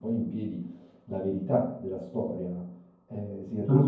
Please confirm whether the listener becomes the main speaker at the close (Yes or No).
No